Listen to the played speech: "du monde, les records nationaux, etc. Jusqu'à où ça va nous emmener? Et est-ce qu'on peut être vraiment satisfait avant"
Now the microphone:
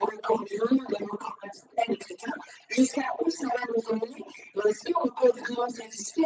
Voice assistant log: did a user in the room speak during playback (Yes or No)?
No